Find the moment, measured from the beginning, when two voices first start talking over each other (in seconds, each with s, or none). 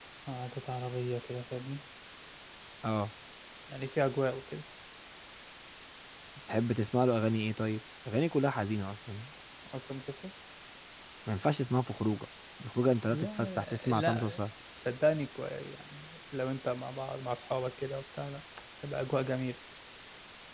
13.1 s